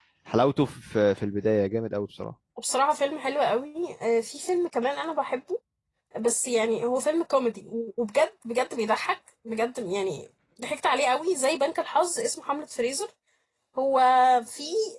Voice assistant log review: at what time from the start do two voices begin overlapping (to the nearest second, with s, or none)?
none